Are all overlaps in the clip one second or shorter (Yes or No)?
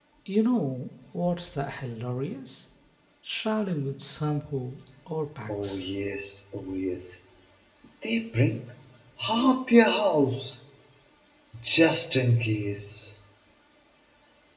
Yes